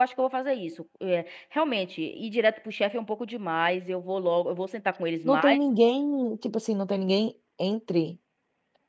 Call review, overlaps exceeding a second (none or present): none